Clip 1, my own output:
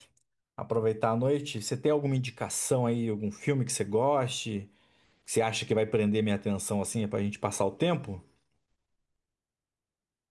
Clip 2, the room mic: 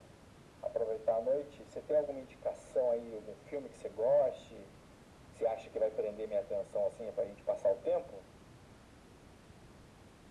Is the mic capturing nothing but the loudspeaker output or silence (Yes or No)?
Yes